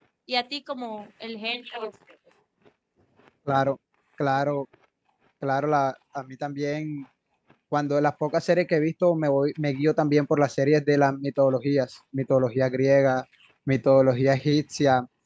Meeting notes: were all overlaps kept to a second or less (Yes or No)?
Yes